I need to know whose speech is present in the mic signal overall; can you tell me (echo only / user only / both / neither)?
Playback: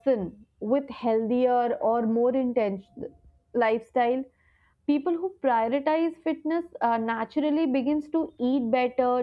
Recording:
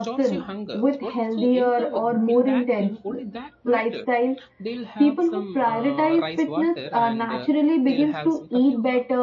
both